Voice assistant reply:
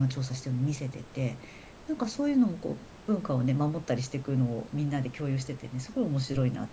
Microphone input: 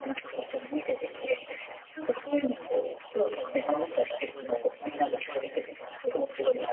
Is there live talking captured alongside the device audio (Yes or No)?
No